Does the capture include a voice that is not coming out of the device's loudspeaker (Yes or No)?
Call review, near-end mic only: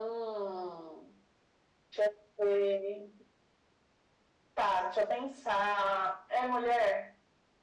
No